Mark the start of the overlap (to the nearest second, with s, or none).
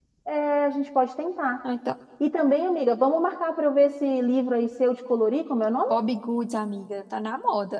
none